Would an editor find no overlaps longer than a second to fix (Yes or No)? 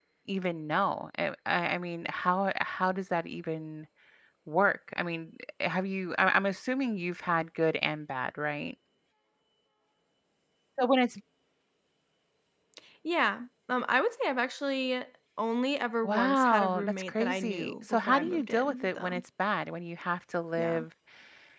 No